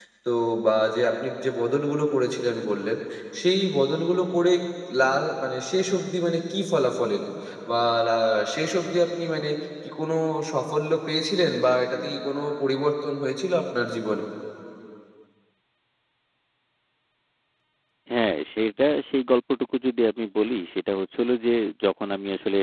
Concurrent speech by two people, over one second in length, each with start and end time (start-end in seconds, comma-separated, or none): none